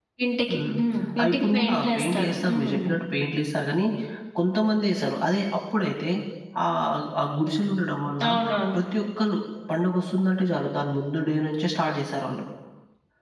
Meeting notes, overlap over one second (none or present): present